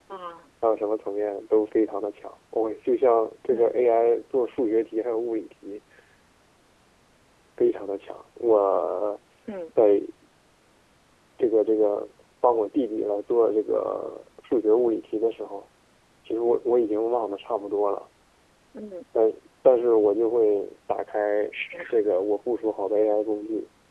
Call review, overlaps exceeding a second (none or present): none